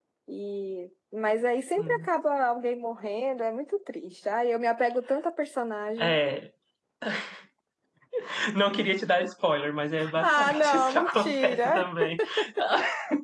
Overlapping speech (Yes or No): Yes